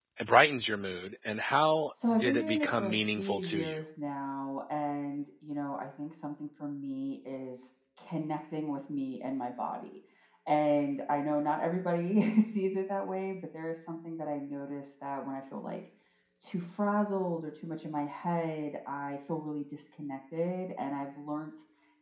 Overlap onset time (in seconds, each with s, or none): 2.1 s